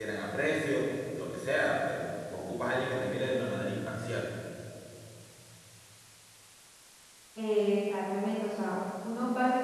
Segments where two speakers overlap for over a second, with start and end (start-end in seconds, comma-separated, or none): none